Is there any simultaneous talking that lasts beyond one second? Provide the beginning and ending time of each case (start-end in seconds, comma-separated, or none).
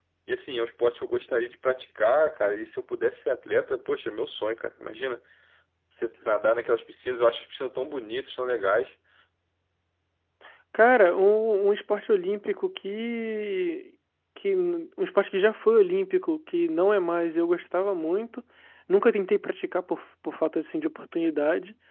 none